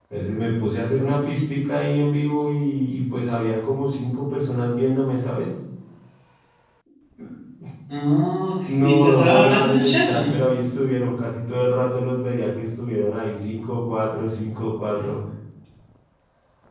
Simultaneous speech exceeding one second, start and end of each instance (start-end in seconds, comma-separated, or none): 8.7-10.4